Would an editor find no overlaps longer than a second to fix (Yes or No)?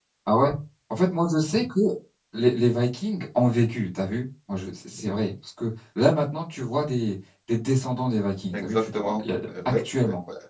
No